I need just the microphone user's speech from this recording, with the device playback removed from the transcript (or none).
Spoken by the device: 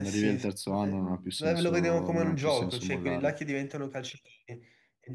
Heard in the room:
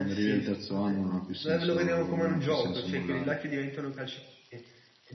none